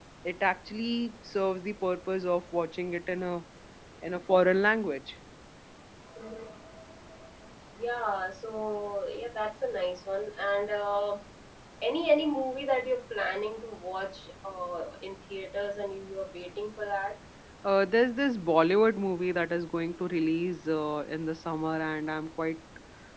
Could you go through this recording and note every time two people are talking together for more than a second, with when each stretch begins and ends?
none

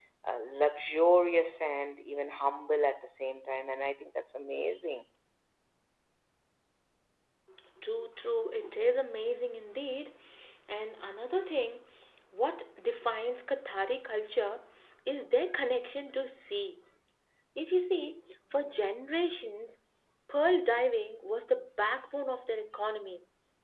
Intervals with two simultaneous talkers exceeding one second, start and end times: none

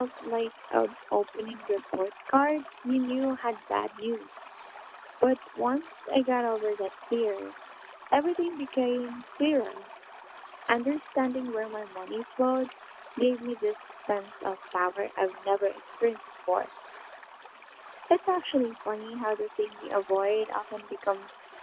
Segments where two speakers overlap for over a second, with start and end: none

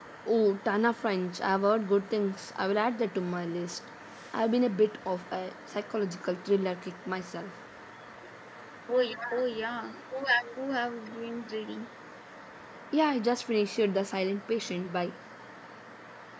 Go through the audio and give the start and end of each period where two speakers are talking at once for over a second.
none

